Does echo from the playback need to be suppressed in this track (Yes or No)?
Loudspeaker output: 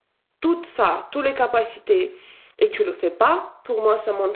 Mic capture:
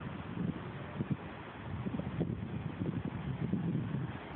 No